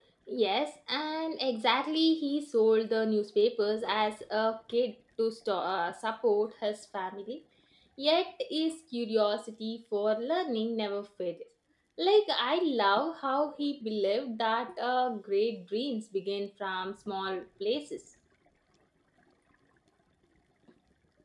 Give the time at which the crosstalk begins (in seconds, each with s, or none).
none